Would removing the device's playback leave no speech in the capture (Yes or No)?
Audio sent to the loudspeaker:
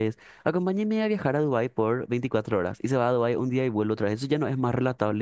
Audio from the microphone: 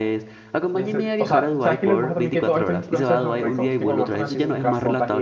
No